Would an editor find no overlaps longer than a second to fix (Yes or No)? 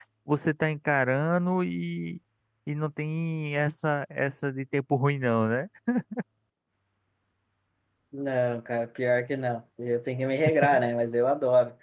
Yes